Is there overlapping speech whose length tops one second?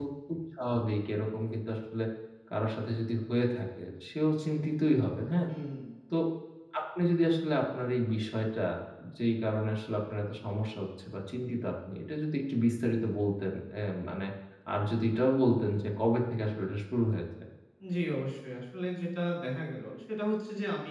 No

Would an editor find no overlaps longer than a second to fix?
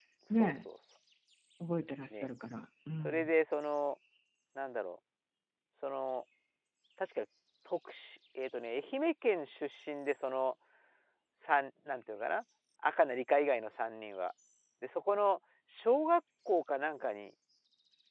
Yes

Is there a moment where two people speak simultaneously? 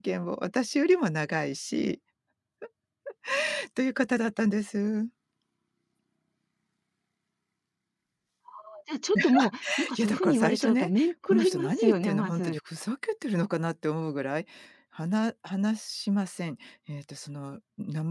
Yes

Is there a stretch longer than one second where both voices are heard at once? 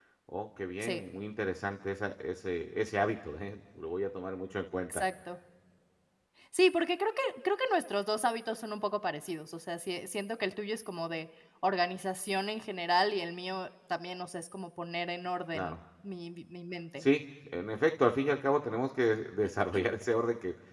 No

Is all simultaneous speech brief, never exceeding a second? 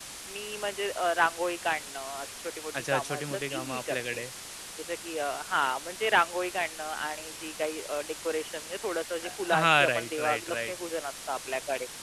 No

